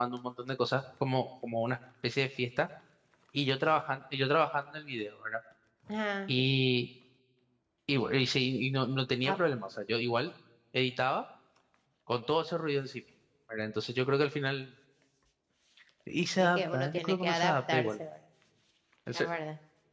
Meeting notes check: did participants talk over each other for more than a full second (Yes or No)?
Yes